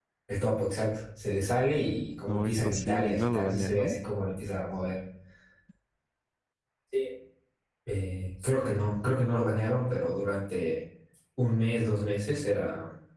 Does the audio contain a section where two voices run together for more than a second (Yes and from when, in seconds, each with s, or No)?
Yes, from 2.3 s